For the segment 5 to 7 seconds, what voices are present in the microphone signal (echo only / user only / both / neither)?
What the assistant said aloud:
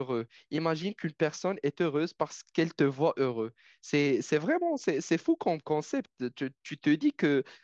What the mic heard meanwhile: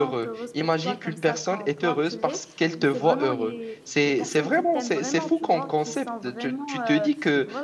both